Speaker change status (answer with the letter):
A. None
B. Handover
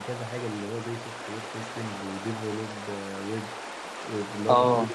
A